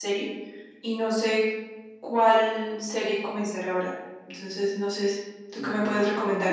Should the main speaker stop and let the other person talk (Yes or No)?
Yes